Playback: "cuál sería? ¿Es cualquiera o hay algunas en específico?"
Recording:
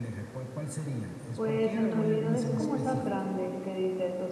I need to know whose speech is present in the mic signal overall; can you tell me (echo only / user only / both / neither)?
both